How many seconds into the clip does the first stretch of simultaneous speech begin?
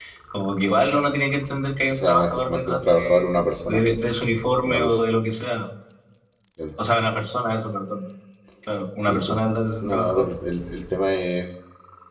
1.9 s

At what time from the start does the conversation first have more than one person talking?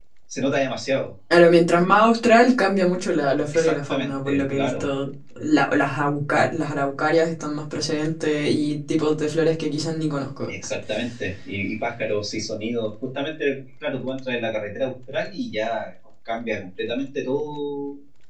3.5 s

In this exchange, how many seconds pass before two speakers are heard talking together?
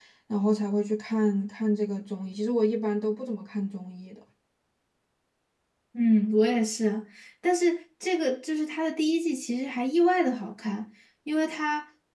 none

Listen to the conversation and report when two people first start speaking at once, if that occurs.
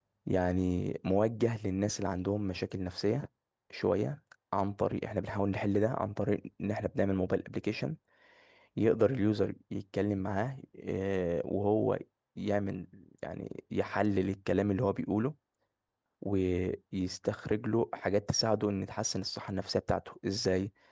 none

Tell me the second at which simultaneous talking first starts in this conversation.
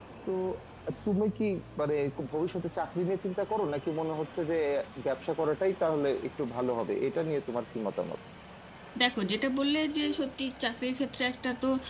none

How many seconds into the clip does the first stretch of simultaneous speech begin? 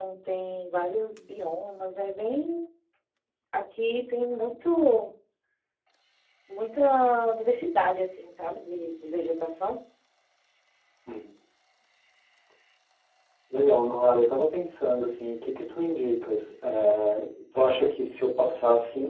none

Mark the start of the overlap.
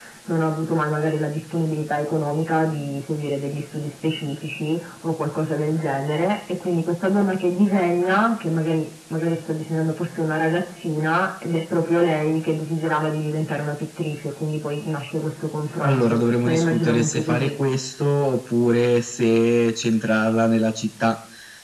15.8 s

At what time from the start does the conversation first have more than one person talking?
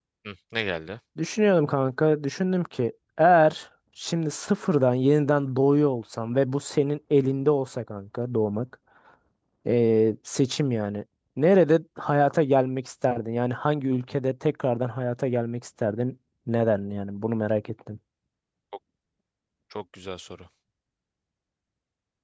none

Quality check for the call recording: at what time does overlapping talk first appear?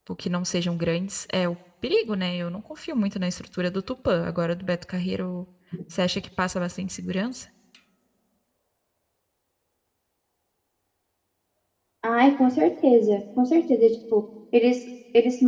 none

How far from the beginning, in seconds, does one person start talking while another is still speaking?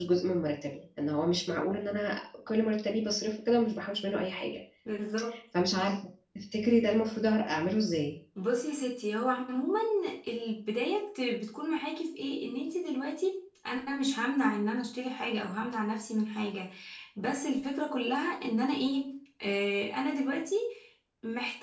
none

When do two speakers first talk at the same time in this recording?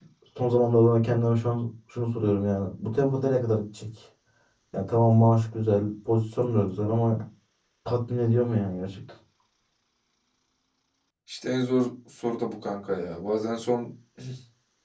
none

